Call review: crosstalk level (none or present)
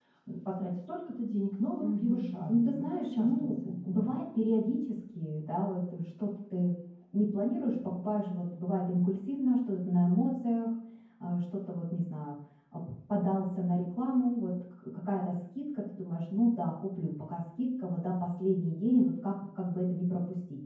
present